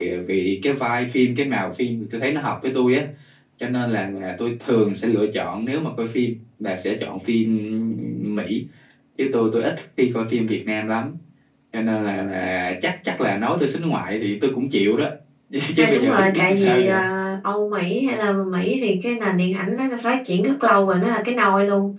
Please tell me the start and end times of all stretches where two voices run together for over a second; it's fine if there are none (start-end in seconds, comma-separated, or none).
15.8-17.0